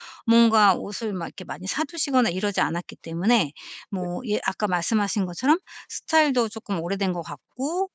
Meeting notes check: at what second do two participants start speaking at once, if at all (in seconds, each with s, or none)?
none